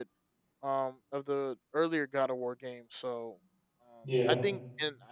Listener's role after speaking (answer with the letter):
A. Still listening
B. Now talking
A